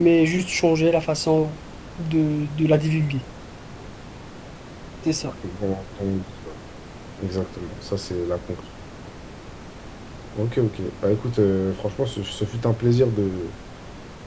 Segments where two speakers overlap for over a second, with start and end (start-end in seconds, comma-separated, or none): none